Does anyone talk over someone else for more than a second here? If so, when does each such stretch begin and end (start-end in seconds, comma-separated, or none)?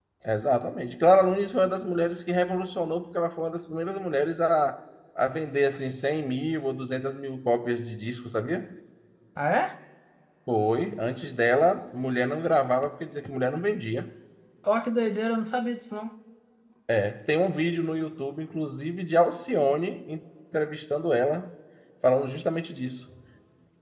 none